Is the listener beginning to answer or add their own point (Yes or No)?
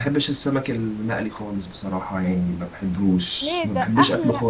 Yes